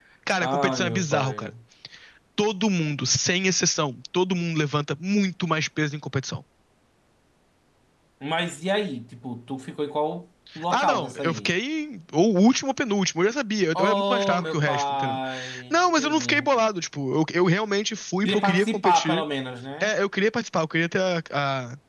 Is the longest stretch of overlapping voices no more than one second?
No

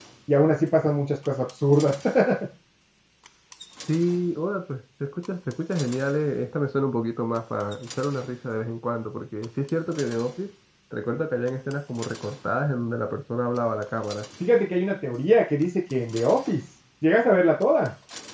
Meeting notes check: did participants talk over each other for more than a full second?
No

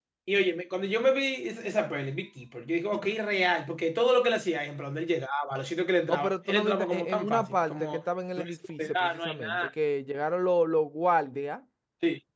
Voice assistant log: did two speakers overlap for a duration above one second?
Yes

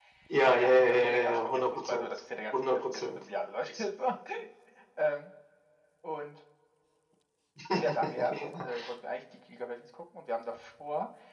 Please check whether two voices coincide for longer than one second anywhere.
Yes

